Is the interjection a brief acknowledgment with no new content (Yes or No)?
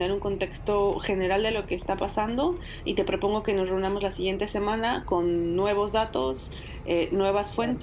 Yes